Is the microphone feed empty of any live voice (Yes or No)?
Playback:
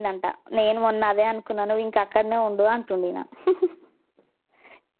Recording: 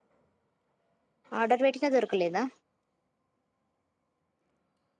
No